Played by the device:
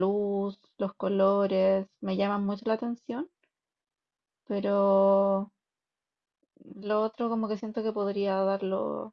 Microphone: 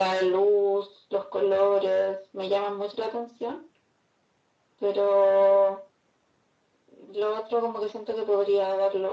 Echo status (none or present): present